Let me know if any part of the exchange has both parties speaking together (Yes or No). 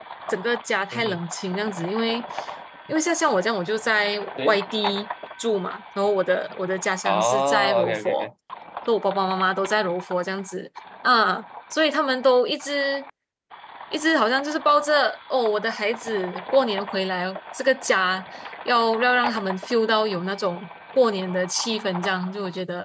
Yes